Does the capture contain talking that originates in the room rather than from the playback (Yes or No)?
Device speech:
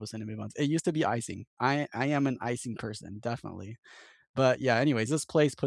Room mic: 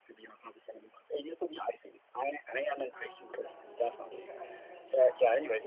Yes